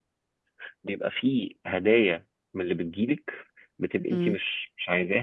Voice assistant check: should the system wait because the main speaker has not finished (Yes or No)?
Yes